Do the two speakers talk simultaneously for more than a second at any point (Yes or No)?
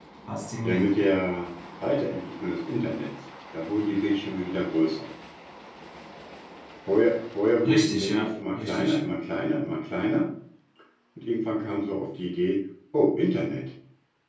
Yes